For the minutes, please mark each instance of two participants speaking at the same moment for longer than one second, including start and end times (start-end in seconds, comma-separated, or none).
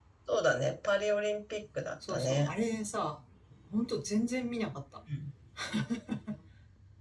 none